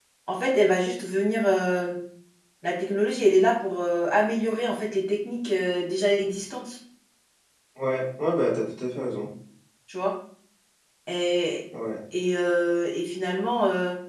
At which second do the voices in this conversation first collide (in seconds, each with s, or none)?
none